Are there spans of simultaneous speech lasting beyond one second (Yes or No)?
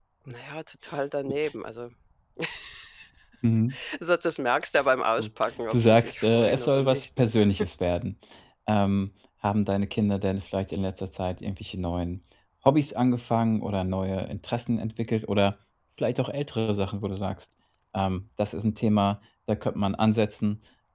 Yes